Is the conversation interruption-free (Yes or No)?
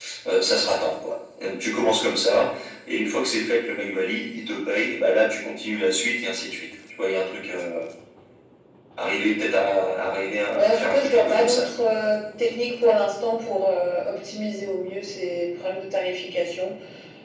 No